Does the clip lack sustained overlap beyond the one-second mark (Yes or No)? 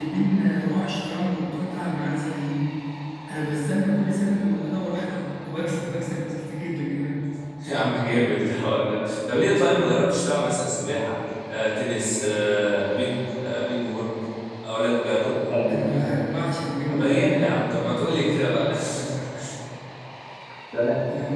Yes